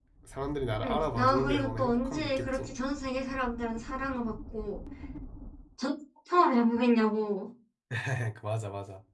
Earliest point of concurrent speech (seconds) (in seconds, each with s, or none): 0.8 s